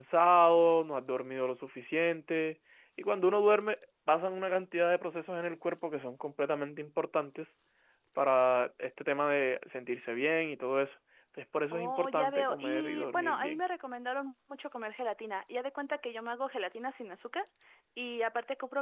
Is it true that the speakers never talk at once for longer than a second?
No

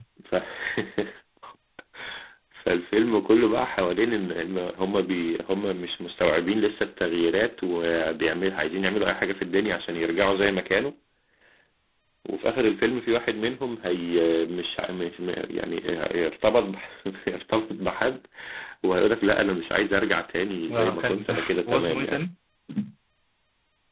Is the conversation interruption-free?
No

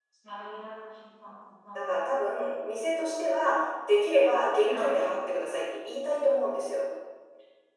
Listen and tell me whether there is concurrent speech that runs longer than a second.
No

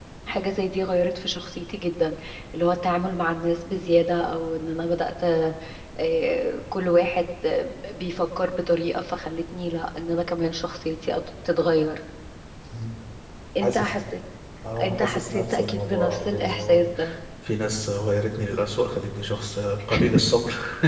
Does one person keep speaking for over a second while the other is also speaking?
Yes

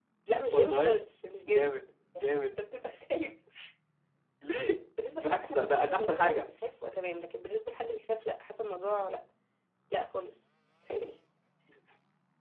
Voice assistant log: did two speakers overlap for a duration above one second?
Yes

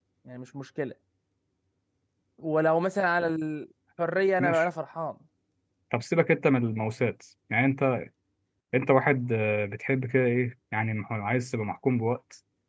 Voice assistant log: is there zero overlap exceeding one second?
Yes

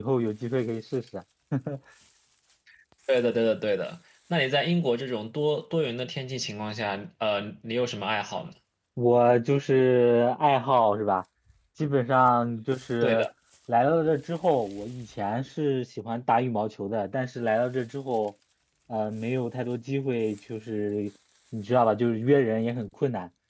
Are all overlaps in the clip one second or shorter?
Yes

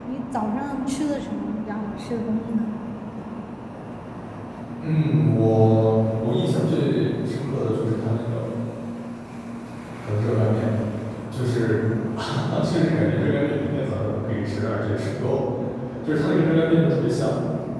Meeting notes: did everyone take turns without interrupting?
Yes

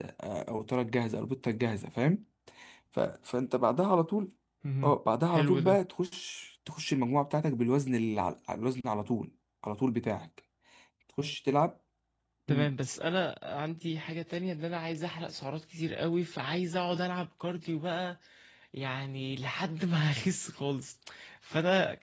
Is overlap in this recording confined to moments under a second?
Yes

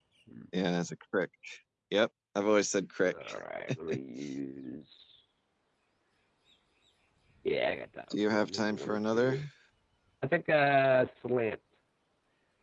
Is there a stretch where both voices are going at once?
Yes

